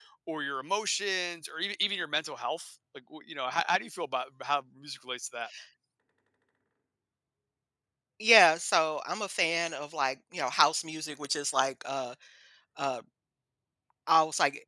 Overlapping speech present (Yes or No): No